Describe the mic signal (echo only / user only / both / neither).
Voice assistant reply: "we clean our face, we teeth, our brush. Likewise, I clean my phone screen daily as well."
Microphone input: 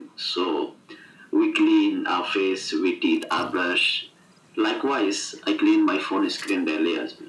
echo only